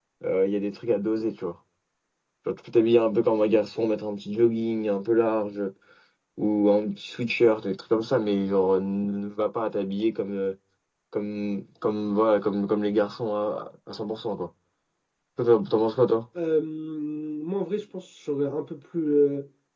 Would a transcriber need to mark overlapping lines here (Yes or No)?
No